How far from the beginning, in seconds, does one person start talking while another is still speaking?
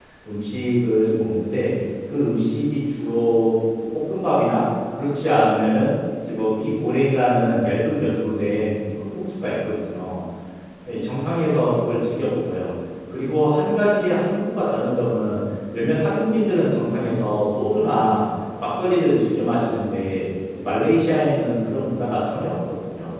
none

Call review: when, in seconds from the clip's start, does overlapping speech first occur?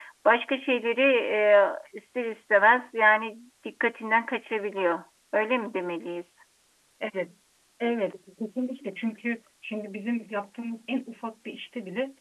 none

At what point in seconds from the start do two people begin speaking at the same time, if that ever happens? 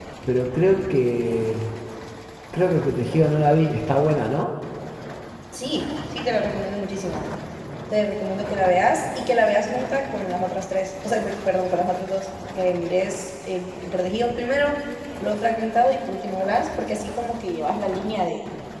none

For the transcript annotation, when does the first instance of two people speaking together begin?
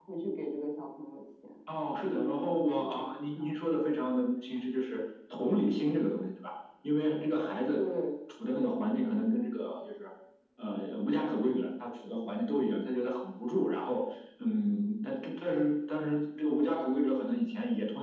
2.1 s

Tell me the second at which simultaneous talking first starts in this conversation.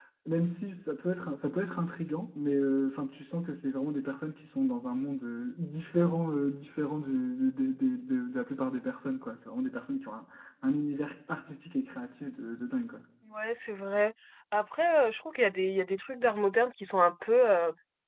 none

